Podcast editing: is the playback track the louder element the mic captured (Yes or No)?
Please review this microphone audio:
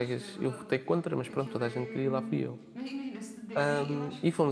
No